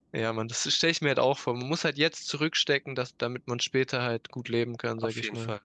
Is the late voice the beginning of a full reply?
Yes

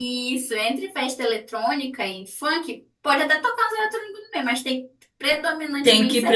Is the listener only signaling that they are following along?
No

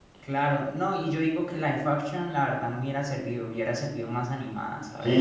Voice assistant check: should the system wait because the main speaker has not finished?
No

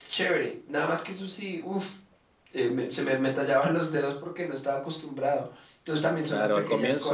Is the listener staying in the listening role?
No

